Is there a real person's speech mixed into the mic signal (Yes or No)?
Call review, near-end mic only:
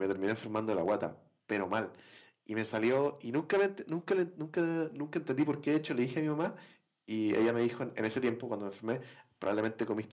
No